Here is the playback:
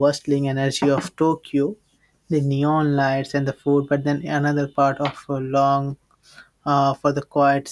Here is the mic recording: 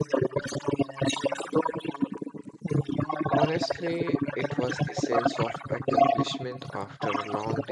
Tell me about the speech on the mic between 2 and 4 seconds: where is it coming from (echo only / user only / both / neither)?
both